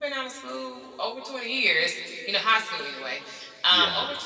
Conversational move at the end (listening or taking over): listening